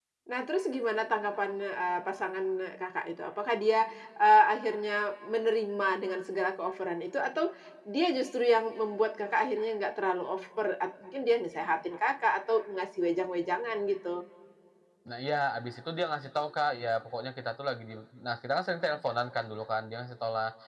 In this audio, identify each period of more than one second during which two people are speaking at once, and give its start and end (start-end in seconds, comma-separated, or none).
none